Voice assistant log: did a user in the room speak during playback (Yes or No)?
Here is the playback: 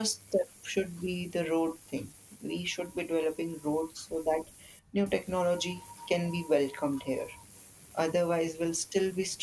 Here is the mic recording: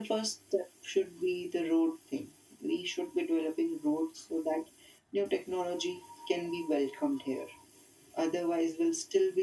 No